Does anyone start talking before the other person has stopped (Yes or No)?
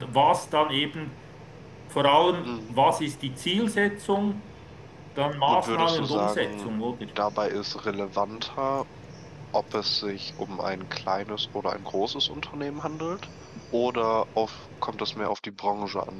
Yes